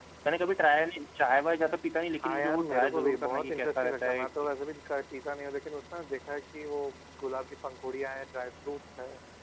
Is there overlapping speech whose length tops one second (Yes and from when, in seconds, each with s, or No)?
Yes, from 2.2 s